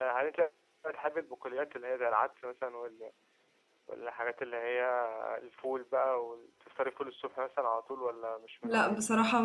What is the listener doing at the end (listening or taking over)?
taking over